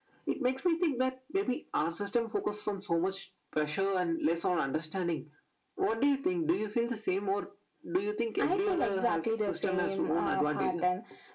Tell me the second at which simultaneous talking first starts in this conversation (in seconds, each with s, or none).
8.4 s